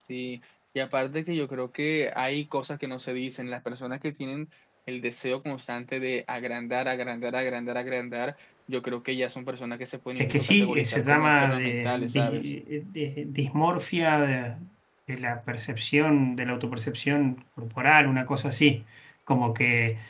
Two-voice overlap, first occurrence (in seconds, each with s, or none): 10.2 s